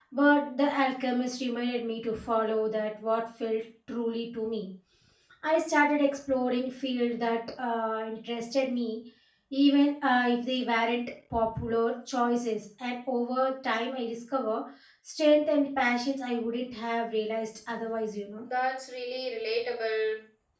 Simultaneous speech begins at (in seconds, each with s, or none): none